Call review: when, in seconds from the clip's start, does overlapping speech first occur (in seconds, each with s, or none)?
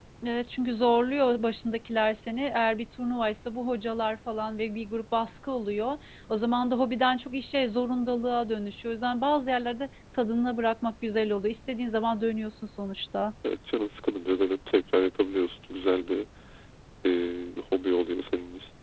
none